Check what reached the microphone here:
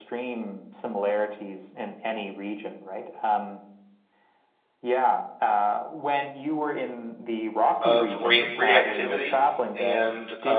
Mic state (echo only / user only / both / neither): both